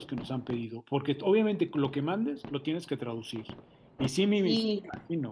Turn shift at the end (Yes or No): No